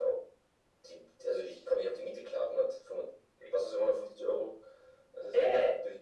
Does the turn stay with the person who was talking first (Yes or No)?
No